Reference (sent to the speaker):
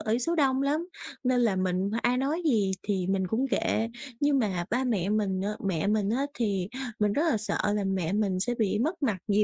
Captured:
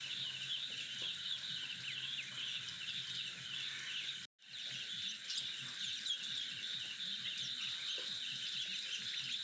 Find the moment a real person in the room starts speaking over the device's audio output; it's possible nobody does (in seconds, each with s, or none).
none